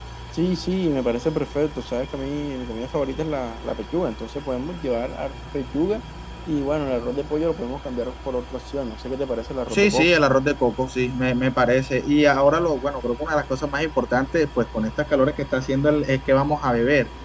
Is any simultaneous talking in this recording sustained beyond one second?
No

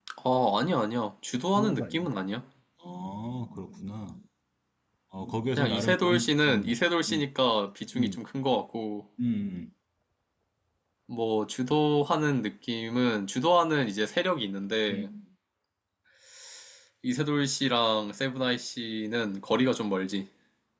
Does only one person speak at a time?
No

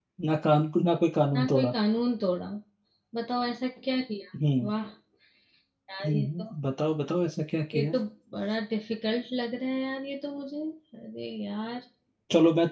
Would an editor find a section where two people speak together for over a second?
No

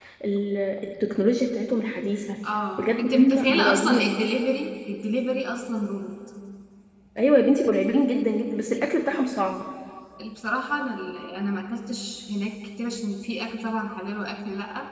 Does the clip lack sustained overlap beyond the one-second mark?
No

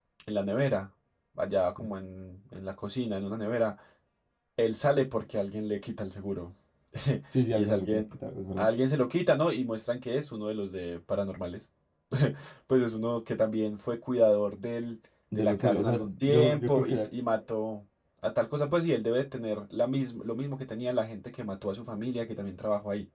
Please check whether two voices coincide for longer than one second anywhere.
Yes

